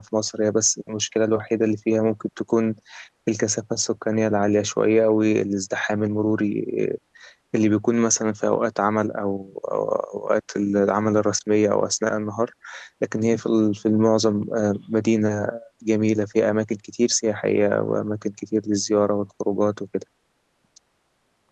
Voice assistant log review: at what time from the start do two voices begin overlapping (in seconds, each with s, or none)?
none